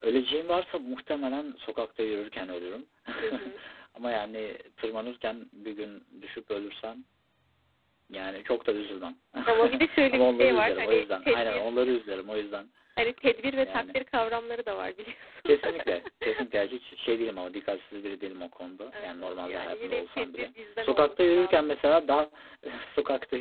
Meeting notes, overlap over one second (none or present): present